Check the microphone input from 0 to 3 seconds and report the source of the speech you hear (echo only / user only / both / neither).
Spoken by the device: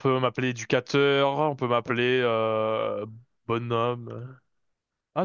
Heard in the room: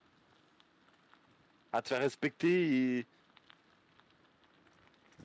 user only